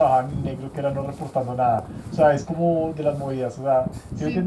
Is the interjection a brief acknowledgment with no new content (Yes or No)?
Yes